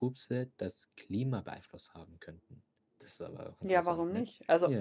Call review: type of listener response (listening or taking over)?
taking over